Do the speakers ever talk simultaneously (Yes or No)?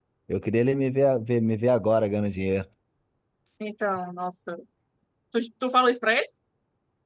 No